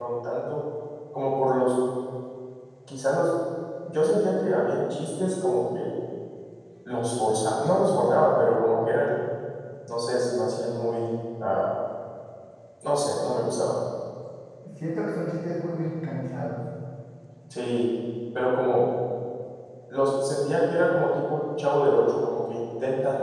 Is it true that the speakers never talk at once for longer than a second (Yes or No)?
Yes